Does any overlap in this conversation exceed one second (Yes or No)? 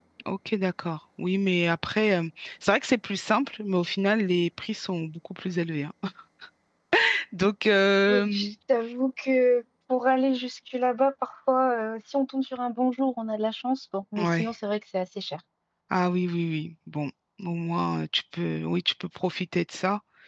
No